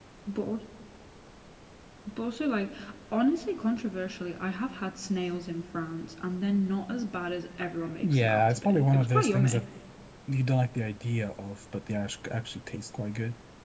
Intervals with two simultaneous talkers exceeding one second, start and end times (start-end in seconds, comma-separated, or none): 8.0-9.6